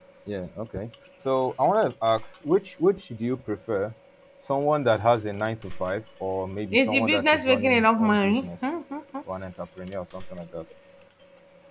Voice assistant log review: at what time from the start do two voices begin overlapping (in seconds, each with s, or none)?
6.7 s